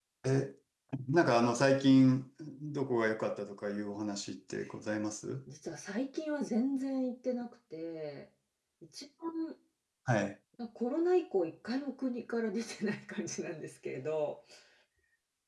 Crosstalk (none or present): none